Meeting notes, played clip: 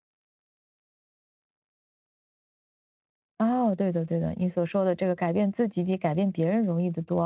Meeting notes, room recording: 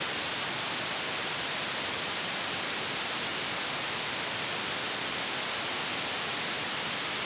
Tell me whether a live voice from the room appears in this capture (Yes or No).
No